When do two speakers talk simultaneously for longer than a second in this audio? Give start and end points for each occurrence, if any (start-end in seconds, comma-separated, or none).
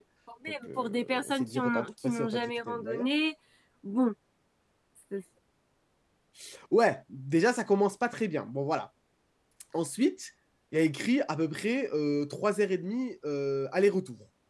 0.7-3.1